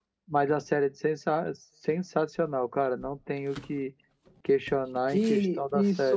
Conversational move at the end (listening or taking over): taking over